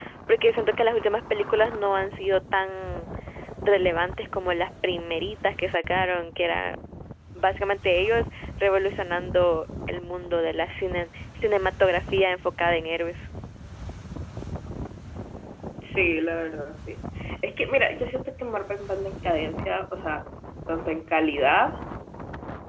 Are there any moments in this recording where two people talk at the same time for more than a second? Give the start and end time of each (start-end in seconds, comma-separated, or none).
none